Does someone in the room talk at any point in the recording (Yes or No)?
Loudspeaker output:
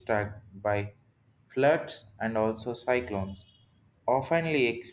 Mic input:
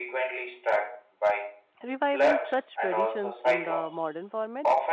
Yes